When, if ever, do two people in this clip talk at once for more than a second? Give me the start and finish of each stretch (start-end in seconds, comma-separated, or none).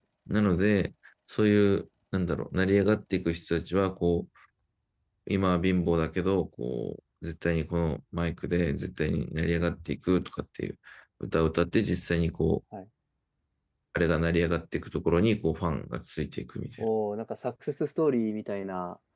none